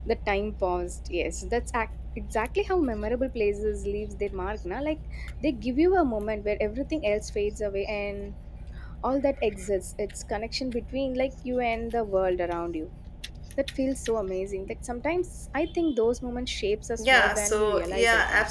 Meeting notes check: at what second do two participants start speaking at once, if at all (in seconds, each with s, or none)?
17.0 s